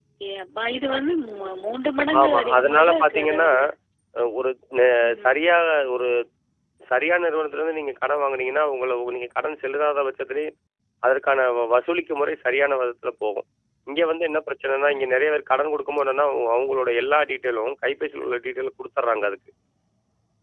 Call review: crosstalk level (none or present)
present